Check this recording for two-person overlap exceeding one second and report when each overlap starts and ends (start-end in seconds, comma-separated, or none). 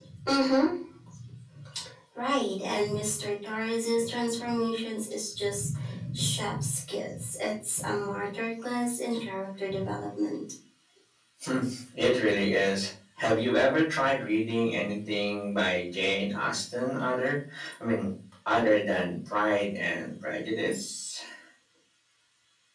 none